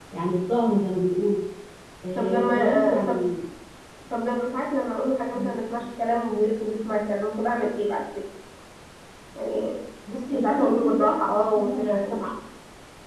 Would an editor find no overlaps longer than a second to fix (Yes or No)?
No